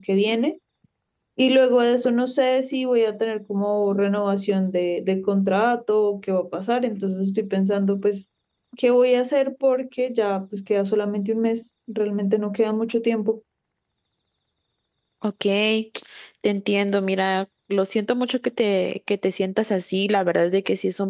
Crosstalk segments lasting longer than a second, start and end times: none

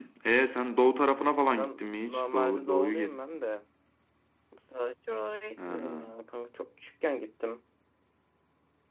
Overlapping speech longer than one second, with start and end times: 1.5-3.4

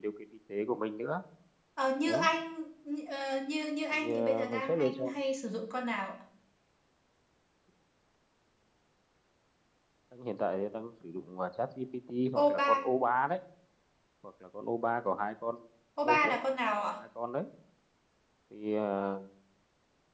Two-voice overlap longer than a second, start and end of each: 3.9-5.1

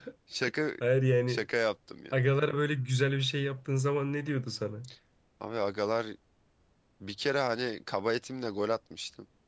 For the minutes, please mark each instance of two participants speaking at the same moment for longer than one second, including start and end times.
none

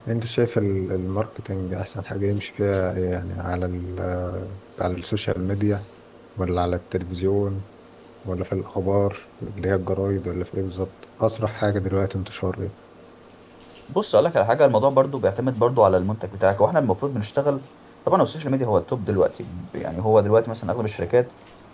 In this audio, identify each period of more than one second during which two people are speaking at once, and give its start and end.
none

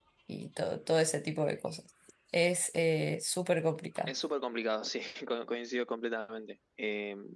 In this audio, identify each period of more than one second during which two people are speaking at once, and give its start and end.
none

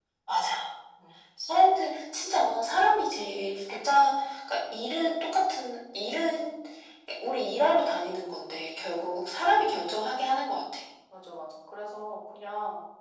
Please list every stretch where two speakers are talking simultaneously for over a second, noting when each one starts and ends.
none

